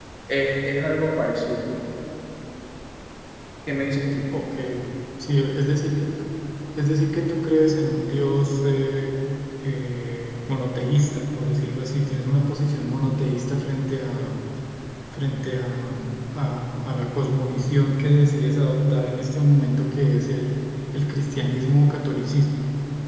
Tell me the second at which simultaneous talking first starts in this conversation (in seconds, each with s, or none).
none